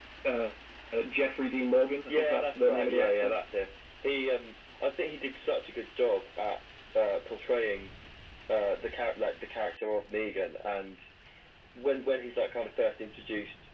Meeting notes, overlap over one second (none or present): present